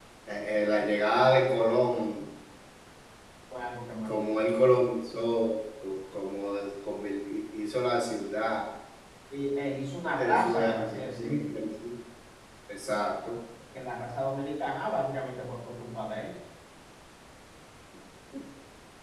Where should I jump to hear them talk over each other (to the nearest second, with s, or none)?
10 s